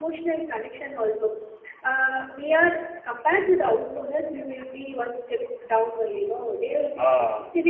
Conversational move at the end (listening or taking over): listening